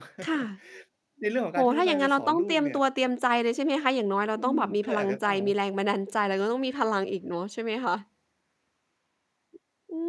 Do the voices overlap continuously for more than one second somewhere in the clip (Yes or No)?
Yes